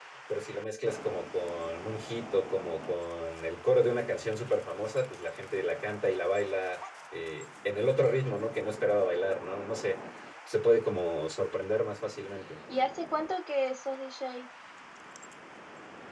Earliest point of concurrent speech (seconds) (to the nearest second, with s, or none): none